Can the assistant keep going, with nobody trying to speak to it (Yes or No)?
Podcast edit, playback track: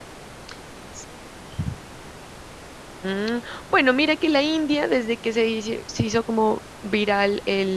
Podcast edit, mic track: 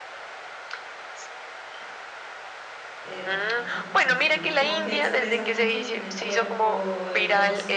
No